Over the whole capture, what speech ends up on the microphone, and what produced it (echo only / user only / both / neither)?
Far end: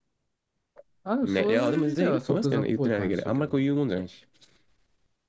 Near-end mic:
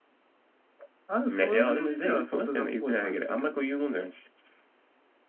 echo only